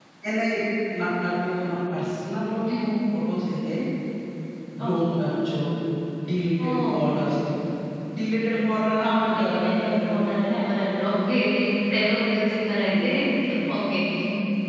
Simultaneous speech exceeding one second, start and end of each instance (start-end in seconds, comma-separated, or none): 9.0-10.4